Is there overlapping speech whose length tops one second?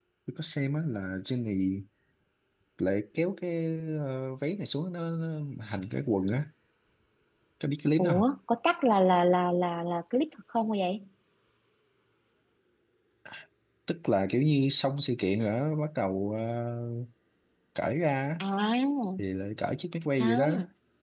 No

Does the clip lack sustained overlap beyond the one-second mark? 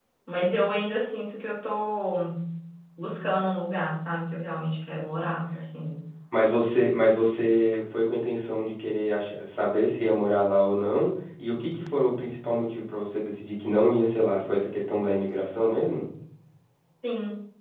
Yes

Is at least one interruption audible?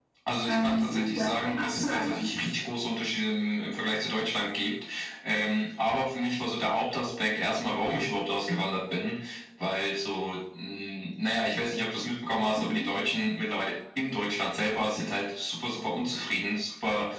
Yes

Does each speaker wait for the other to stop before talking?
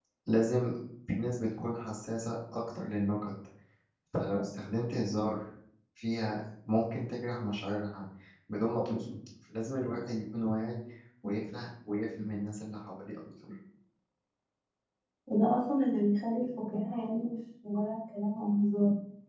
Yes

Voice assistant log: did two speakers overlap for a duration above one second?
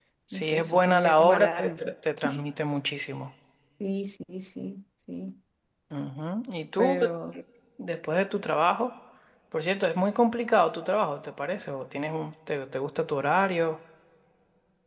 Yes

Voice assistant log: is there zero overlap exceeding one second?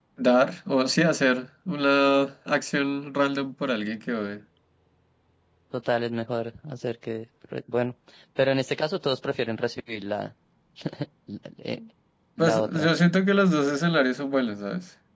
Yes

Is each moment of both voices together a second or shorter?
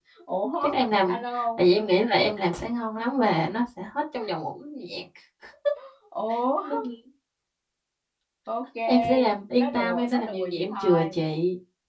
No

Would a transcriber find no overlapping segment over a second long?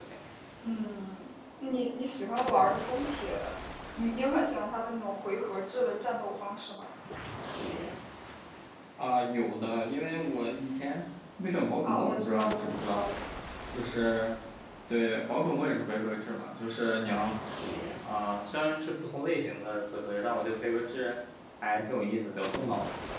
No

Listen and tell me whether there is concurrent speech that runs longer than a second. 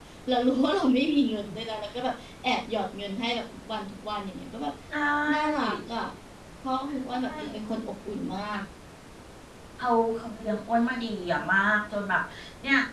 No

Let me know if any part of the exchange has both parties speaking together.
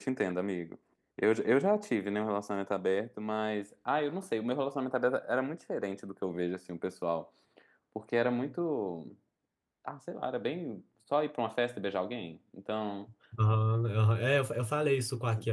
No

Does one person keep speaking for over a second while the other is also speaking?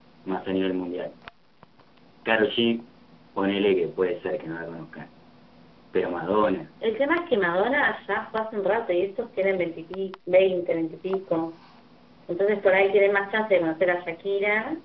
No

